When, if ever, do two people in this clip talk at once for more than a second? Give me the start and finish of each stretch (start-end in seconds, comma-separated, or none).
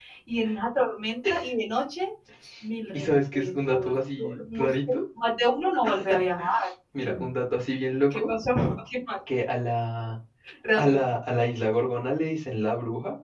2.9-5.0